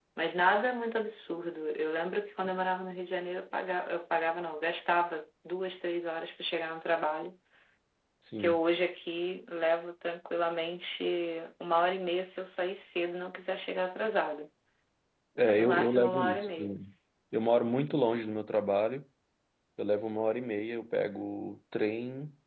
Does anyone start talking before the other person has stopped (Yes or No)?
Yes